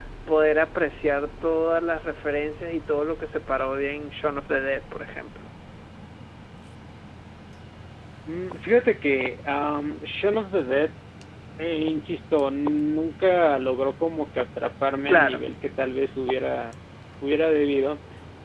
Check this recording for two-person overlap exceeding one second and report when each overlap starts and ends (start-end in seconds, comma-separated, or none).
none